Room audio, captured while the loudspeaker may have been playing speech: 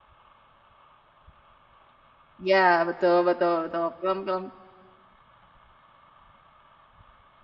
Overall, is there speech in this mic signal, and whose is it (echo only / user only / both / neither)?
user only